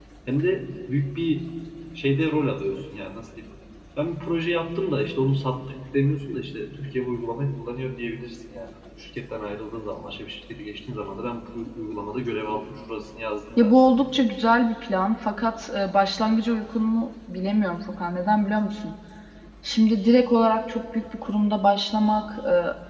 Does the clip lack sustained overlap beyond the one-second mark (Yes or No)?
Yes